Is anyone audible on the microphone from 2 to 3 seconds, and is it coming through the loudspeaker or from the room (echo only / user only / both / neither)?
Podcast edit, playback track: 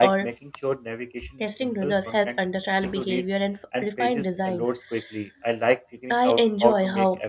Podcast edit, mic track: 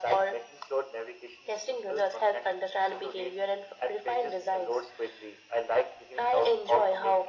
echo only